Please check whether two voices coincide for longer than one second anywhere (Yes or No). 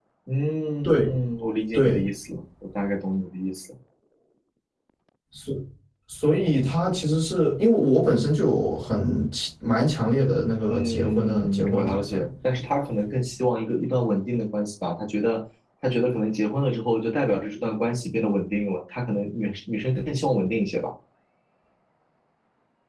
Yes